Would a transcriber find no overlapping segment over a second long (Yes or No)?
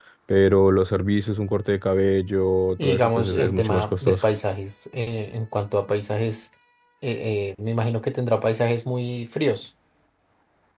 No